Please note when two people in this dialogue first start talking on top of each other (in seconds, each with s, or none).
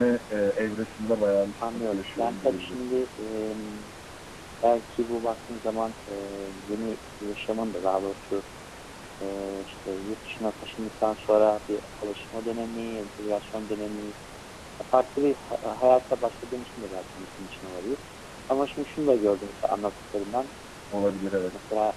1.6 s